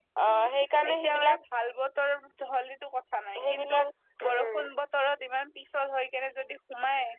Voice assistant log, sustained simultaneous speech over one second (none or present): none